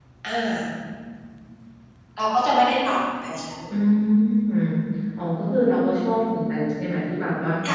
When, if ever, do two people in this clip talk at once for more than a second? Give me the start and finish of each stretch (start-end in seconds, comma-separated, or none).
none